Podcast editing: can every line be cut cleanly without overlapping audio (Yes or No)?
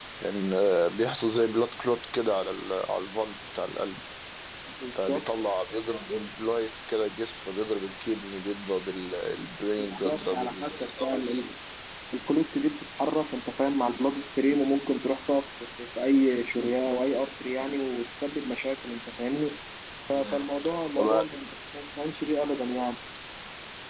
No